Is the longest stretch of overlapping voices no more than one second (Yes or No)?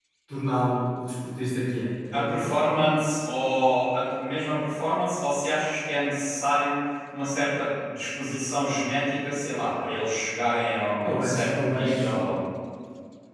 No